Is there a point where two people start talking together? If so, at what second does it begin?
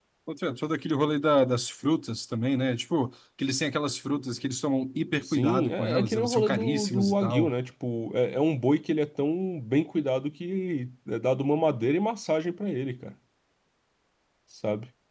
5.2 s

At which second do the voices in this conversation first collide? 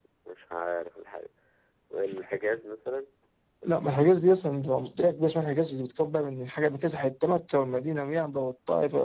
none

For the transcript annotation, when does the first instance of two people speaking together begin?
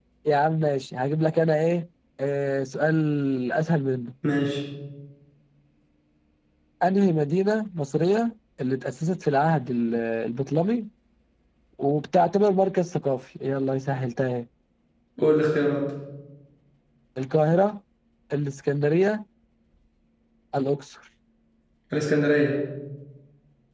none

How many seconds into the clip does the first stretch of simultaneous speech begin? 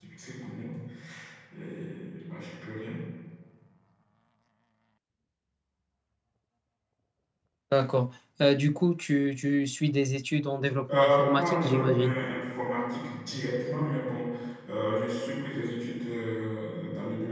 10.9 s

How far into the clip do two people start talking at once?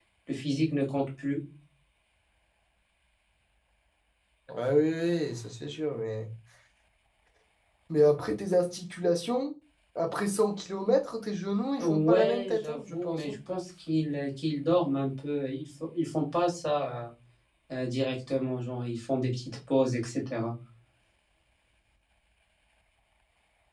11.8 s

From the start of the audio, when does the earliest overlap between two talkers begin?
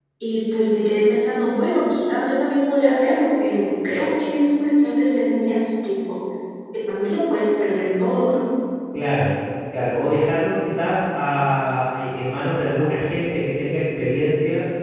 none

